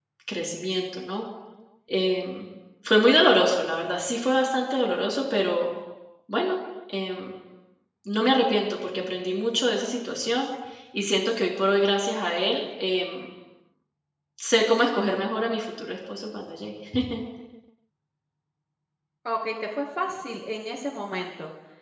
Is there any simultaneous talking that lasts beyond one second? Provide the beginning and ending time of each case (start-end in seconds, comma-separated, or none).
none